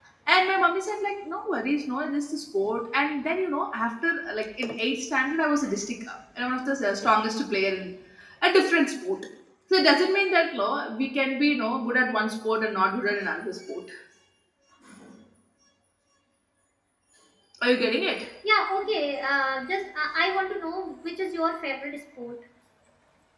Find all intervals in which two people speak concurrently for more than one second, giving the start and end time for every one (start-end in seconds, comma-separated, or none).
none